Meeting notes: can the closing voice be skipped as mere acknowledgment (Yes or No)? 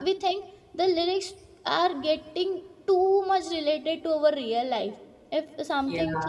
Yes